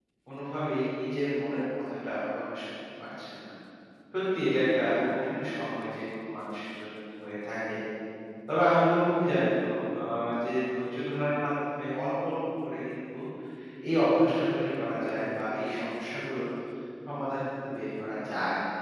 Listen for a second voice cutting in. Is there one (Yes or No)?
No